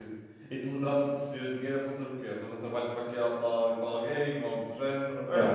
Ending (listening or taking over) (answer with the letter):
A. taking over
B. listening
B